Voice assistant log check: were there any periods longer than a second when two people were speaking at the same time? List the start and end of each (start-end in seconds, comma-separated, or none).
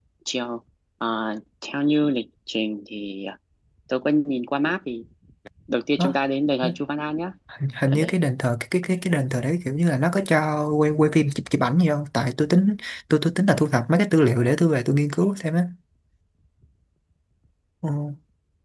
none